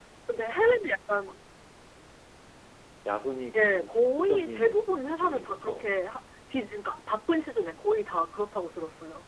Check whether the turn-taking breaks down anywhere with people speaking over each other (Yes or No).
Yes